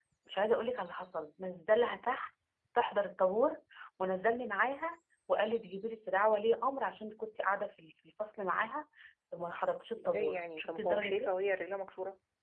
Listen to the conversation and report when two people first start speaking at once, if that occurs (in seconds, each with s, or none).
10.0 s